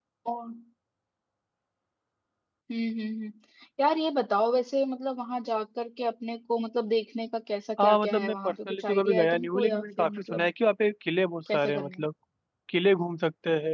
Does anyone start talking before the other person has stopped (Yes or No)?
Yes